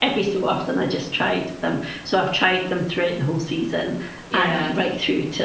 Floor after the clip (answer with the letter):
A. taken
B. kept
B